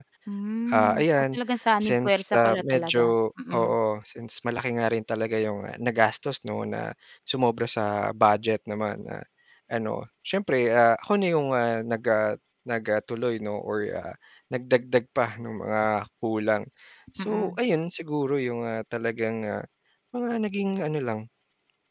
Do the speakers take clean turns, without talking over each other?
No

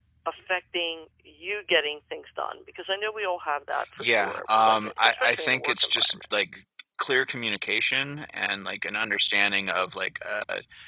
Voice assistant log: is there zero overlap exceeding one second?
No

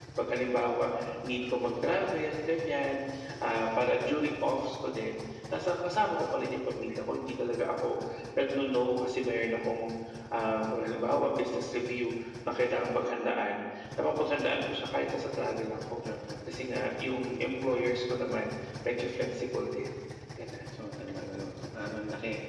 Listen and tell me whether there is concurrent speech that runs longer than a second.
No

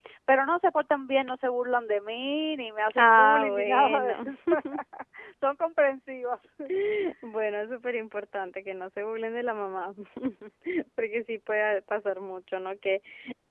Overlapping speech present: Yes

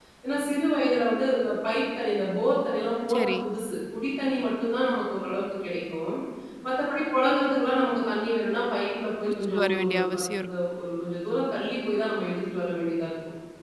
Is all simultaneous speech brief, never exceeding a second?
No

